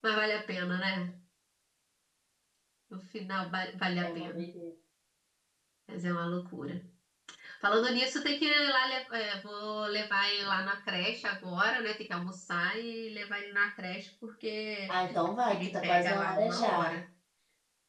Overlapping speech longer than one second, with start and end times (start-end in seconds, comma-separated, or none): 15.5-16.9